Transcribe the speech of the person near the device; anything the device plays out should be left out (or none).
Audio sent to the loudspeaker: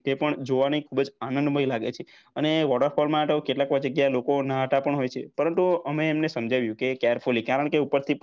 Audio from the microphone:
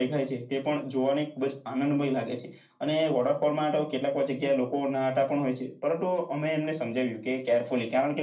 none